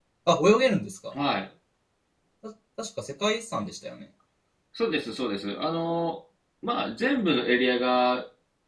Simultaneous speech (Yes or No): No